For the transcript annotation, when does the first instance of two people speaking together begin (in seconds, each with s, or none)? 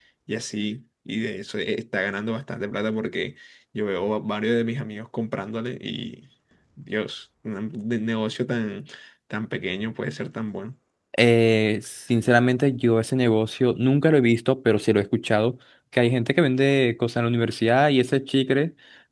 none